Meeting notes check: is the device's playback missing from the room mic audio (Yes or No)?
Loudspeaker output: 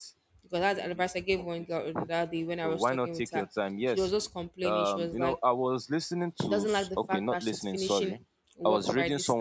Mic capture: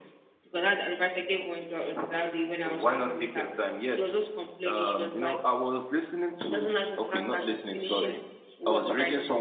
No